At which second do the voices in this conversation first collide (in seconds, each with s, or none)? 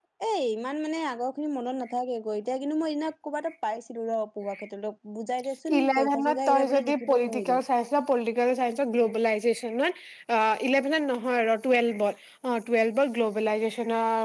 5.7 s